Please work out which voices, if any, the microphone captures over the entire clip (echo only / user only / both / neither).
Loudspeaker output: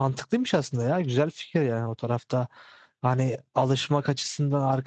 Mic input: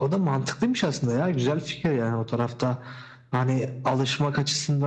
echo only